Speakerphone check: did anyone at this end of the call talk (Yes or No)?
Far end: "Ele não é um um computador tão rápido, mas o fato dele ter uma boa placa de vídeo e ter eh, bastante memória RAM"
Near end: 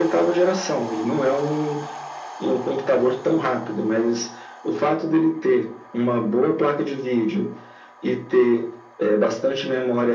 No